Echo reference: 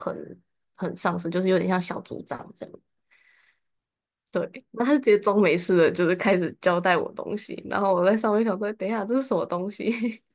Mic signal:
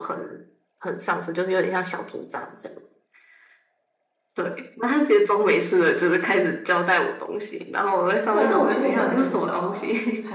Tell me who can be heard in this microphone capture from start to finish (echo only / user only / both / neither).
both